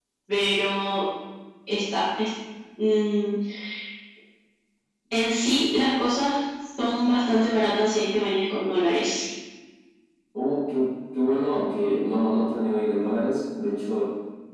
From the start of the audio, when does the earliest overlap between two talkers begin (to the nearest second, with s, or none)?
none